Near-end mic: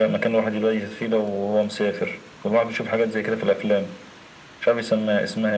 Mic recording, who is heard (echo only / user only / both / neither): echo only